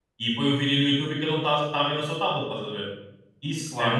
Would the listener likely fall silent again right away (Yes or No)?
Yes